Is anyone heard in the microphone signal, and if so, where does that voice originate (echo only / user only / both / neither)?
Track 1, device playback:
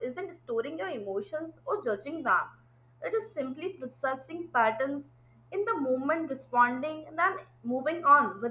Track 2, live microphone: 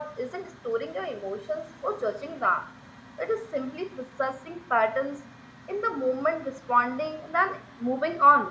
echo only